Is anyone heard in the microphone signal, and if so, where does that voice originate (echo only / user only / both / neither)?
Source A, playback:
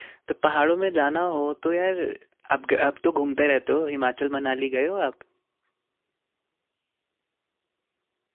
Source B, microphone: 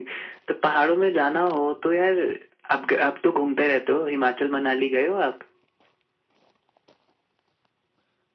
echo only